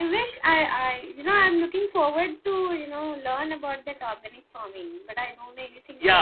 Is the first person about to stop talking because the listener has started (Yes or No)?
Yes